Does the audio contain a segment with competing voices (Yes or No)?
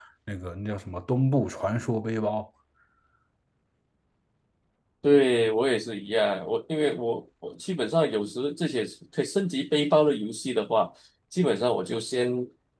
No